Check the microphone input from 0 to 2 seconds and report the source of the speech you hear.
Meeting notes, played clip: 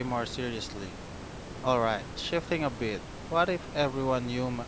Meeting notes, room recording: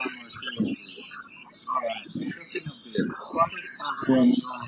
echo only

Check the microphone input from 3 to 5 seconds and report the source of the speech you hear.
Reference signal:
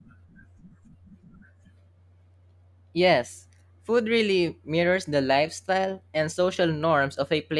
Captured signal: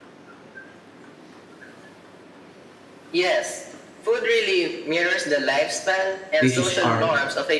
echo only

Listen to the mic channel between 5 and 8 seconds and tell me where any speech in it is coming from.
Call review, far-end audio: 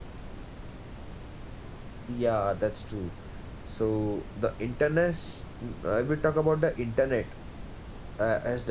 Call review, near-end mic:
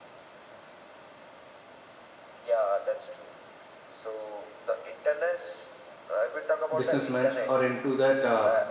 both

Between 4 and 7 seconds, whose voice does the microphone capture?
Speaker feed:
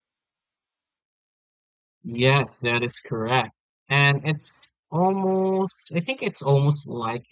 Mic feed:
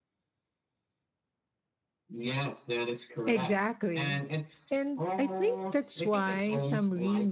both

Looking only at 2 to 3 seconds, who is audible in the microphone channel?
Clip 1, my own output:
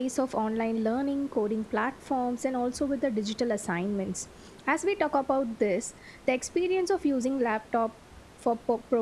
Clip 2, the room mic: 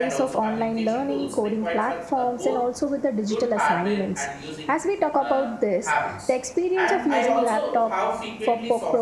both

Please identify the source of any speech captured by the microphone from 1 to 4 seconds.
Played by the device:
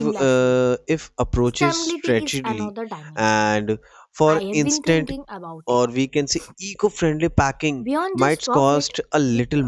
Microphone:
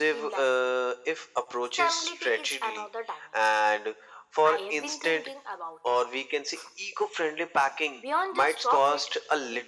echo only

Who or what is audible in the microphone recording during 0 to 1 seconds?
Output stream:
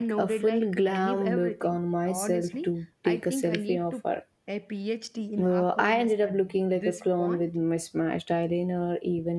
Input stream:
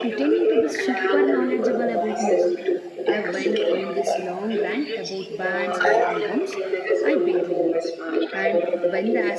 both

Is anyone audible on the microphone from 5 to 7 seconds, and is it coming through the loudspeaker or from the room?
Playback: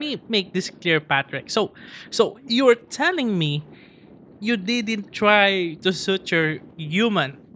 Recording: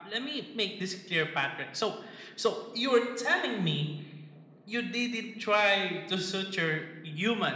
echo only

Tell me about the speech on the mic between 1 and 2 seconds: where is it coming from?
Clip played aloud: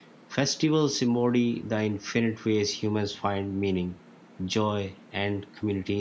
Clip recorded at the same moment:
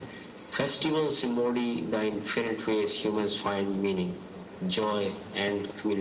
echo only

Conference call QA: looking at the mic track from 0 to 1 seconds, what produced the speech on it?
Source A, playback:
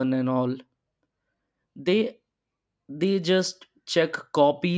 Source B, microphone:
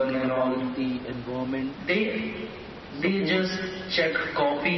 both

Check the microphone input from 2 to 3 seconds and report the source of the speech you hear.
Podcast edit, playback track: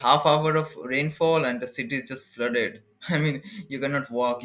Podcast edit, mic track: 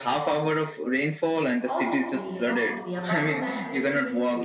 both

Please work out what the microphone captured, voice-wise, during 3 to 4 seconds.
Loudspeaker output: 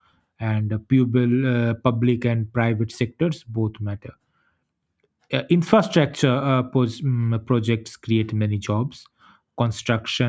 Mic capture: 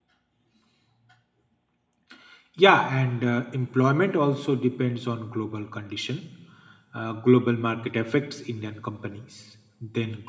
user only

